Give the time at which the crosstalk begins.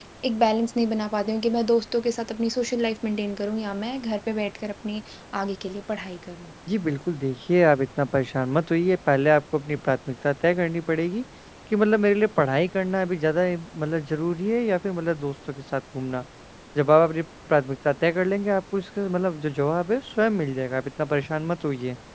none

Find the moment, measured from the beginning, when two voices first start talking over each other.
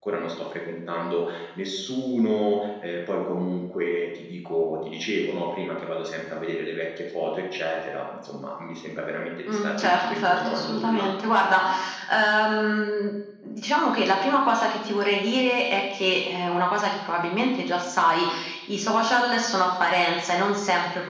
9.5 s

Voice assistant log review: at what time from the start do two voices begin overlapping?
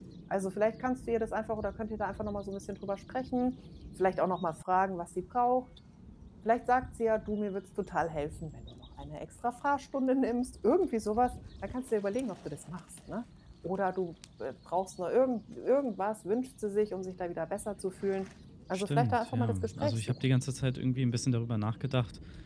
18.8 s

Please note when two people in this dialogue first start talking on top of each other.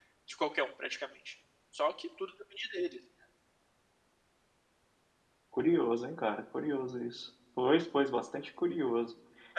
none

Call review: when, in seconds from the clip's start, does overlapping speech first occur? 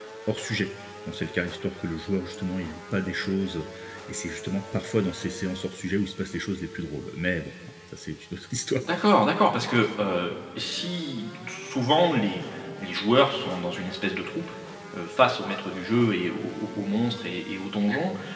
none

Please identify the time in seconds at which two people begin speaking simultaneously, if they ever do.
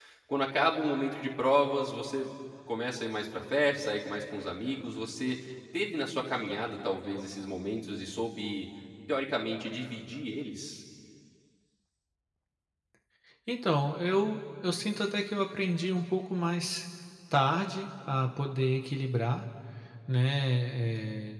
none

